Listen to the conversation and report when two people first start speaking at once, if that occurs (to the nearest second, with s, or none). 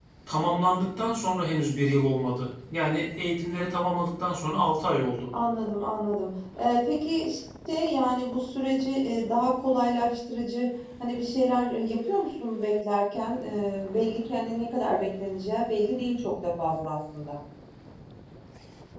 none